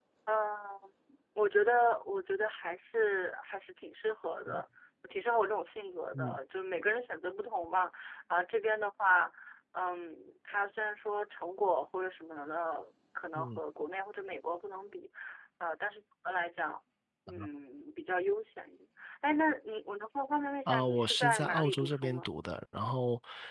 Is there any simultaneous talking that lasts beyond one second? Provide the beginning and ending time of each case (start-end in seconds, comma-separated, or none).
20.7-22.3